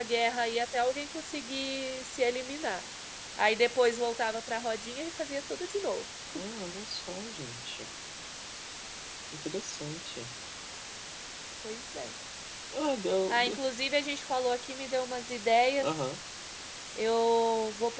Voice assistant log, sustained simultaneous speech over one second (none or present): none